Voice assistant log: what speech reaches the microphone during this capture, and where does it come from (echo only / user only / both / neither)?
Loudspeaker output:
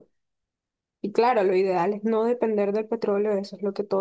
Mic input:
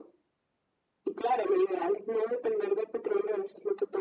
echo only